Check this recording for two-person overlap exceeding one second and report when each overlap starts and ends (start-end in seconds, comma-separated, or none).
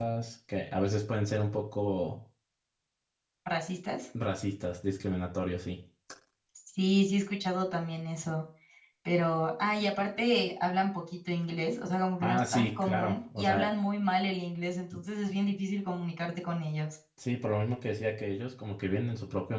12.2-13.7